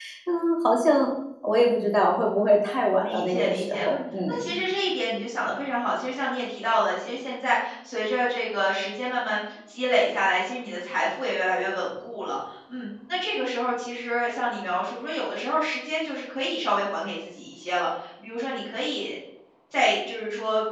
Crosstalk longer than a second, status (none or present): present